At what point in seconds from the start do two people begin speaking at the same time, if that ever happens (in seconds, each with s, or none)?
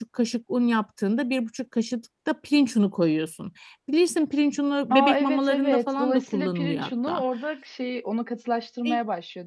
4.9 s